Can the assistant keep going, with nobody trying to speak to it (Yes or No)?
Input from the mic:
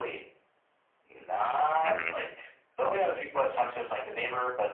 No